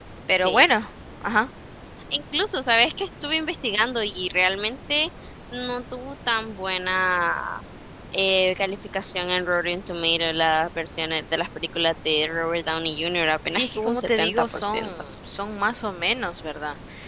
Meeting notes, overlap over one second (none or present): present